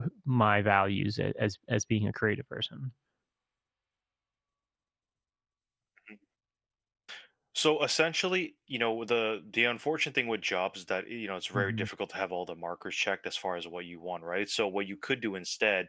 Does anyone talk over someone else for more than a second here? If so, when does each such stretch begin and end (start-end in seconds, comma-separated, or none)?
none